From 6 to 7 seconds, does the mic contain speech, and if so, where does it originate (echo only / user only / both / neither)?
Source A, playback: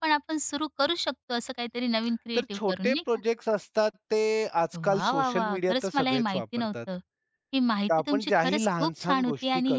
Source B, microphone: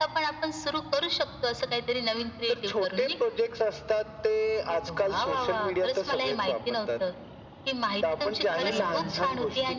echo only